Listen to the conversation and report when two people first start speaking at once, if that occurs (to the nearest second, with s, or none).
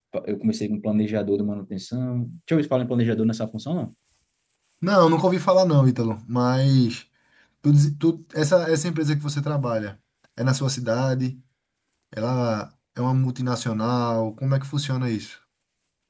none